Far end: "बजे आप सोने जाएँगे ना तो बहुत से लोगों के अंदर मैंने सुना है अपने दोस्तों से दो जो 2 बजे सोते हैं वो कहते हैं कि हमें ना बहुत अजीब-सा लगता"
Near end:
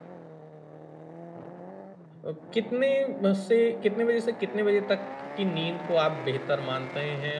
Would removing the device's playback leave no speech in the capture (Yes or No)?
No